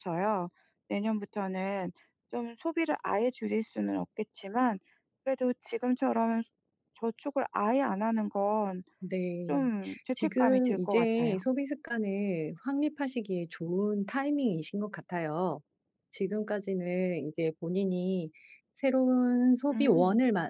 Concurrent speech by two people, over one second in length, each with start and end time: 10.2-11.4

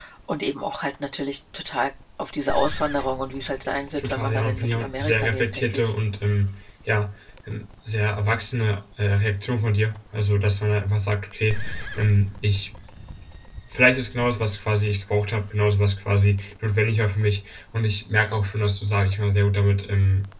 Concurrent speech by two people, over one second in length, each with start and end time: 4.0-5.9

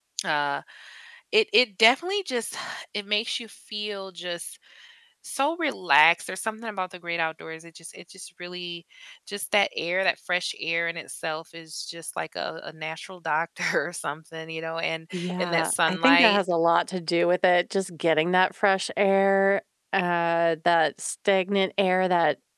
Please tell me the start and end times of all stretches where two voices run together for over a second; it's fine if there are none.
15.1-16.4

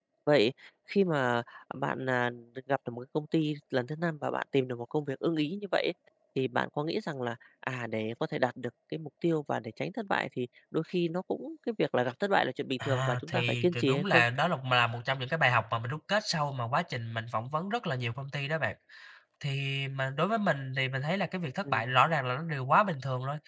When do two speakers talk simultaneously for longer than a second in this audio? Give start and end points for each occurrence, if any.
12.8-14.2

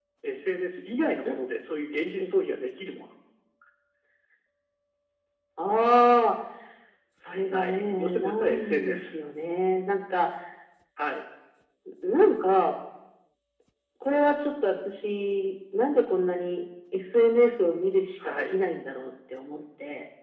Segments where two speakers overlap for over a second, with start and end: 7.5-9.0

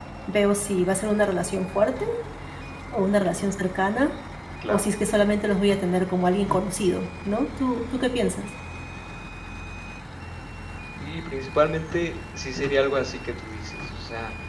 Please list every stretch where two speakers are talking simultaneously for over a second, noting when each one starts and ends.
none

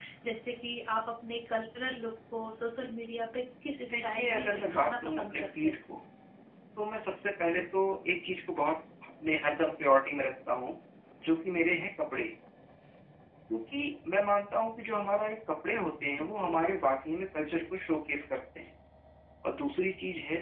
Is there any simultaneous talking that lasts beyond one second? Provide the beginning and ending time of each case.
3.9-5.8

